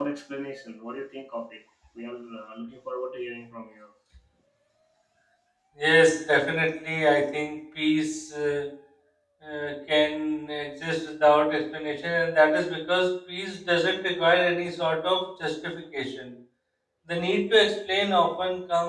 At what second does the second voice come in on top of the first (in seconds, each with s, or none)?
none